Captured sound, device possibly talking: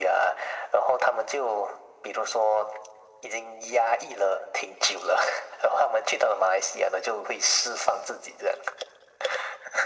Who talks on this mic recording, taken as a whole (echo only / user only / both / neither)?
echo only